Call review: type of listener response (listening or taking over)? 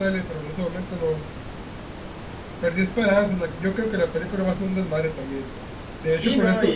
taking over